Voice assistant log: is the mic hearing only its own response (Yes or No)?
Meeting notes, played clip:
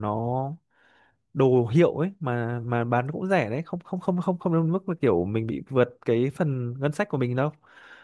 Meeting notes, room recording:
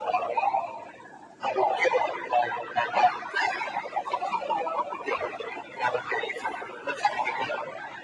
Yes